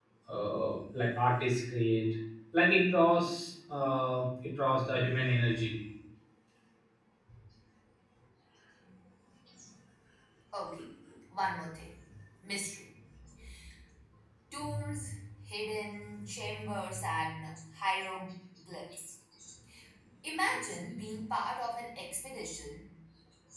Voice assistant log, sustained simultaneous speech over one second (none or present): none